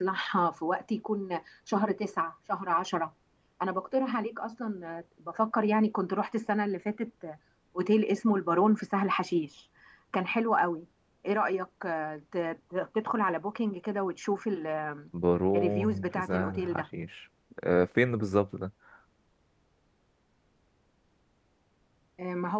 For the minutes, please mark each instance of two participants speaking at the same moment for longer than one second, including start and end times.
15.6-16.8

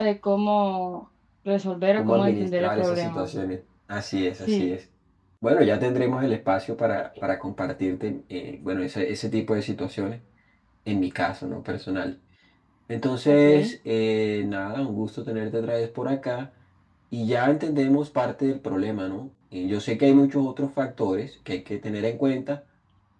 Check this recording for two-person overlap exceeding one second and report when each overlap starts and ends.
2.0-3.3

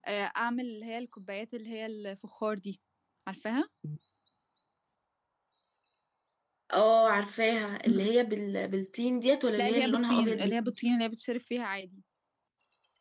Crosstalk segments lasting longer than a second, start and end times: 9.6-10.9

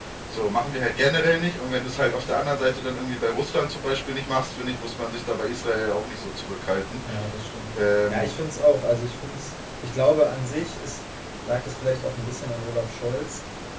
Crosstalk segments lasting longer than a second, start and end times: none

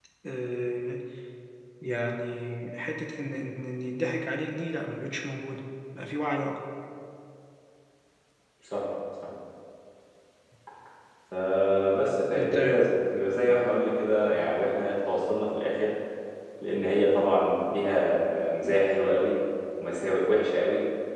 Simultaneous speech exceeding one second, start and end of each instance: none

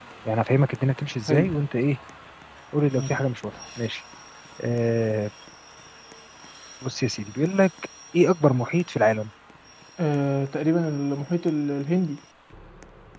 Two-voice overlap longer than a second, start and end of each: none

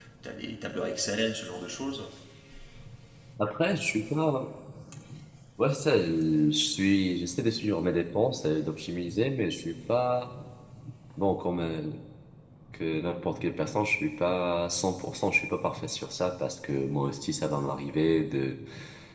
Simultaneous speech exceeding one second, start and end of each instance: none

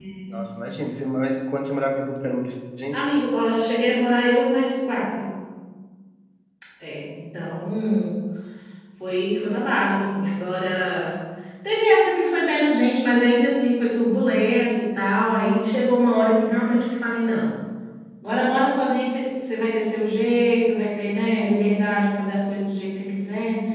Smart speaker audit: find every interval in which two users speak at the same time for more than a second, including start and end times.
none

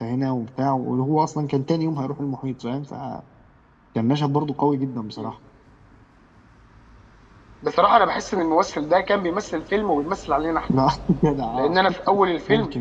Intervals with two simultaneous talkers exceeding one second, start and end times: none

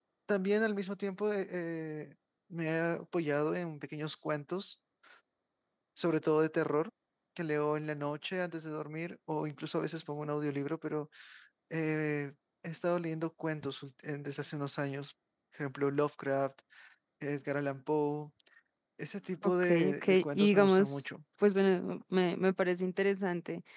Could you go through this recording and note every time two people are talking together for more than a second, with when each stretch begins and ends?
19.4-21.1

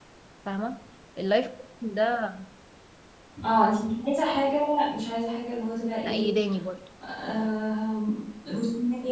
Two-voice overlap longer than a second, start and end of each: none

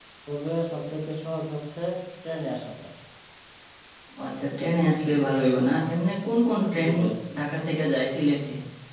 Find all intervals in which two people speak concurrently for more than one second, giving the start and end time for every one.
none

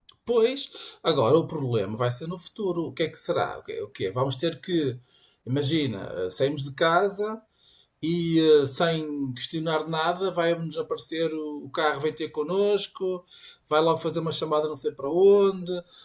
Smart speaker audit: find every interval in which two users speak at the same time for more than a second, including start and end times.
none

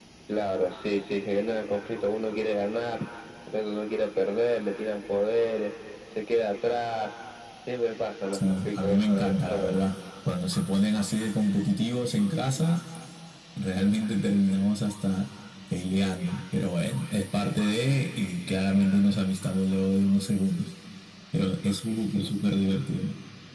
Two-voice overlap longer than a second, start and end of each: 8.3-9.8

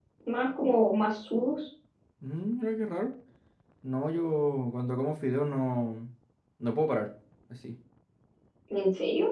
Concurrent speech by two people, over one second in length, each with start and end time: none

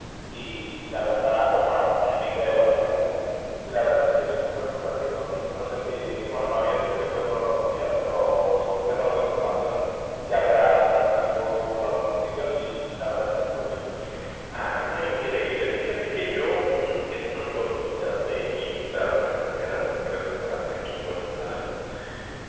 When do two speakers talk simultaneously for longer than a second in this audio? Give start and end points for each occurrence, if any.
none

